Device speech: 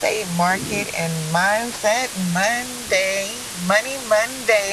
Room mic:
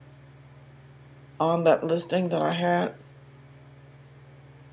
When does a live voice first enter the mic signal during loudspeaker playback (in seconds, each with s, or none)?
1.4 s